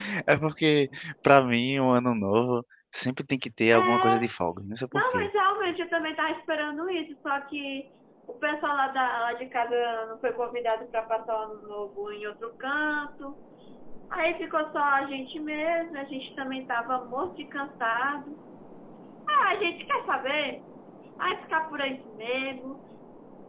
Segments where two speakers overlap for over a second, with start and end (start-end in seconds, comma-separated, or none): none